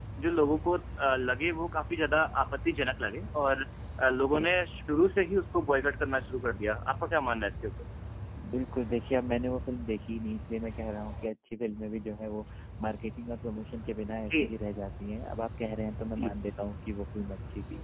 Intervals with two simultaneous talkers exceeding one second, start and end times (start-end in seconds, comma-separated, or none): none